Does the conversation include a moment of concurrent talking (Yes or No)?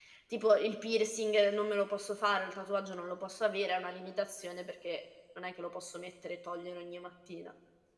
No